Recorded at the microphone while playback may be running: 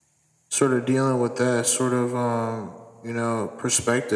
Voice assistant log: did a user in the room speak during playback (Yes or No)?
Yes